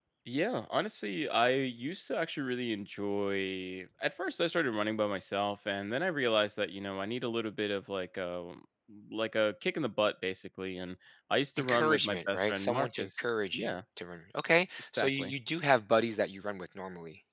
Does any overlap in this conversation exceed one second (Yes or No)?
Yes